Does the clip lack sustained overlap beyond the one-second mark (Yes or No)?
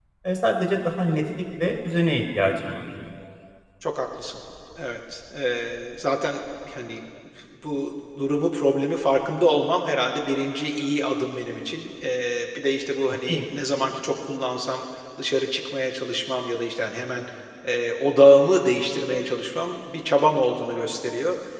Yes